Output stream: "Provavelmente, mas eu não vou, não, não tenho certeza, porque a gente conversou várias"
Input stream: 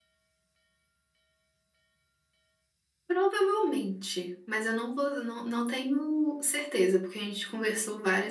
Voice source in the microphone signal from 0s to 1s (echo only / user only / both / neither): neither